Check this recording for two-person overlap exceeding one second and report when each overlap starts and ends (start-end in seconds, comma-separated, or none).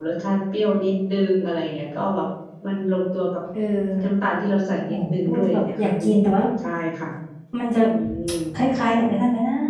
4.9-6.3